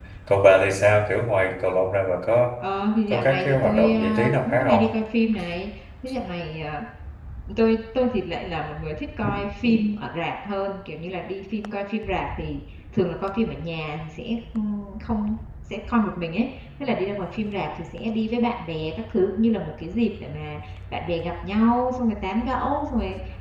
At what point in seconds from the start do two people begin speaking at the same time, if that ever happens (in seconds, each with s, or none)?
3.1 s